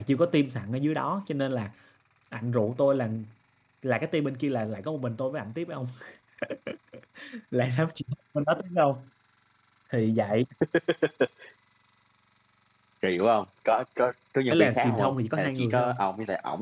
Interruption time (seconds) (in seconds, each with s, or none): 14.5 s